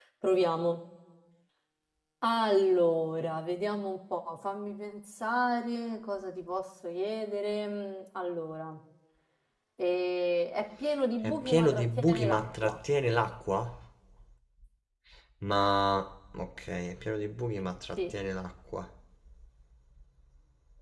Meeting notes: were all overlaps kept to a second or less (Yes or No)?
No